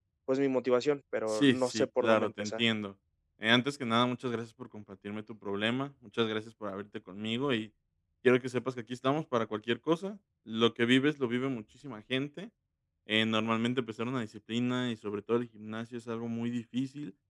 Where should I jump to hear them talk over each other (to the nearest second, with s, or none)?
1 s